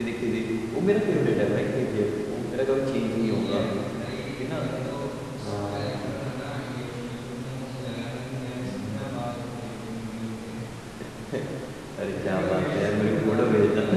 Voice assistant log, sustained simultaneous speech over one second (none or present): present